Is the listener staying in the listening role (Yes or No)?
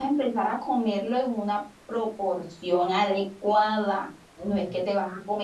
Yes